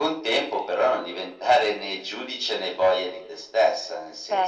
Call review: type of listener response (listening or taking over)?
listening